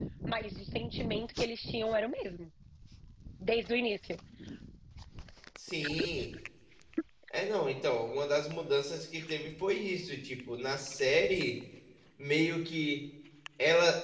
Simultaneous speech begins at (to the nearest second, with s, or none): none